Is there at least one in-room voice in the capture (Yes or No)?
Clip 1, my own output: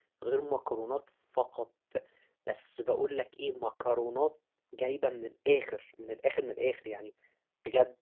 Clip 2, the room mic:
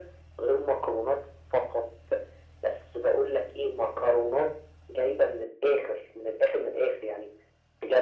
No